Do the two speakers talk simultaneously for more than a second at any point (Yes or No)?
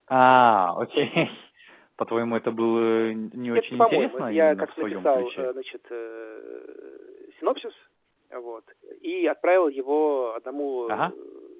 Yes